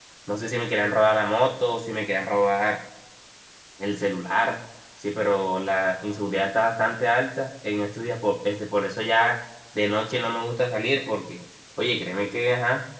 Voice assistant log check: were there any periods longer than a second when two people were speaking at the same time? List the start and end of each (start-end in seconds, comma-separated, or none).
none